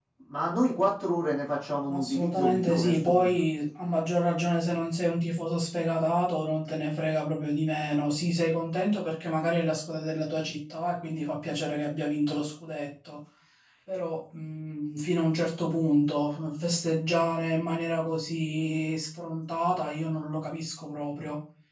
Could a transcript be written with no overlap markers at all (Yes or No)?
No